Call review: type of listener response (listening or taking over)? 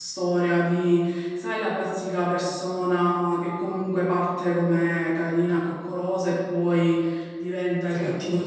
listening